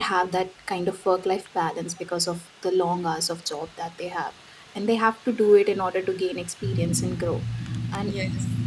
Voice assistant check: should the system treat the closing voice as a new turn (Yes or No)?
No